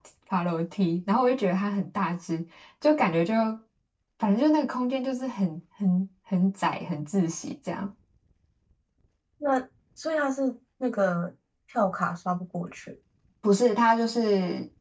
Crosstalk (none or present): none